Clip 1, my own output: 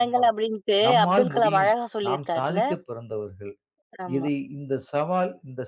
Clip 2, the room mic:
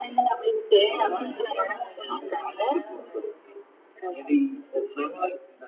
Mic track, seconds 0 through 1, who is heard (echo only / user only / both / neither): both